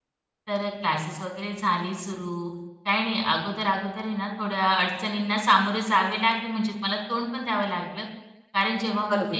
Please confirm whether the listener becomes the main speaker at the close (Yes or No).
No